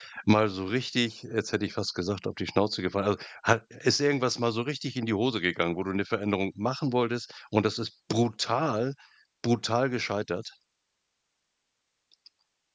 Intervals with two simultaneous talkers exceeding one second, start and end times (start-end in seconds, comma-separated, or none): none